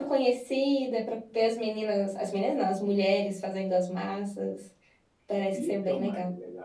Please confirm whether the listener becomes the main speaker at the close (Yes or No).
Yes